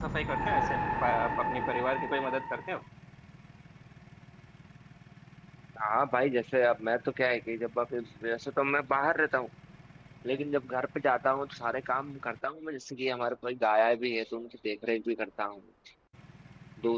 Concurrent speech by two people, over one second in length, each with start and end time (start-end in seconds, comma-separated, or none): none